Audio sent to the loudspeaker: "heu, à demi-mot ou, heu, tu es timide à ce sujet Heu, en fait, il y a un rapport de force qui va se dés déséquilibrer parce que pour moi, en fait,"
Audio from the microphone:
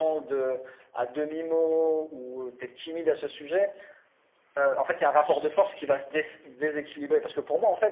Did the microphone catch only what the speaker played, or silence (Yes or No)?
No